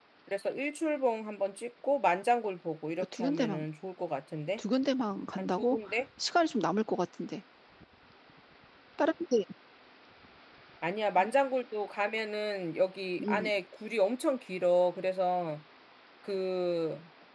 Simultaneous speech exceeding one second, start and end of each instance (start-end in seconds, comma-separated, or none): none